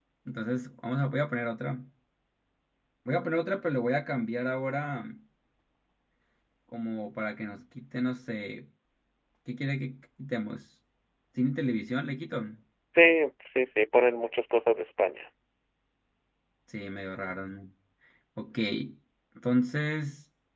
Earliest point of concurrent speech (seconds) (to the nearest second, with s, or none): none